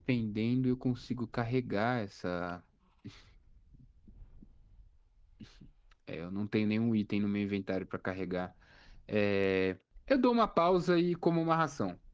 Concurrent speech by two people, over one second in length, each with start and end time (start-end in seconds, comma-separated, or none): none